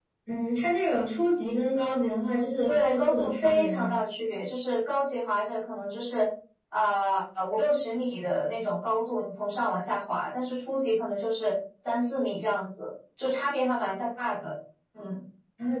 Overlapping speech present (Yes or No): Yes